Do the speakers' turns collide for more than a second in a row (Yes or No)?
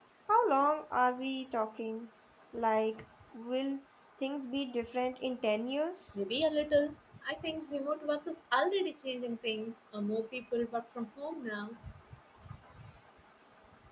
No